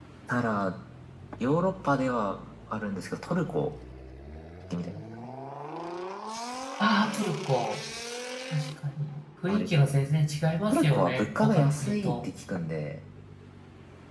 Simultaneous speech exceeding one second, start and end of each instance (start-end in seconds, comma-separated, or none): 10.7-12.2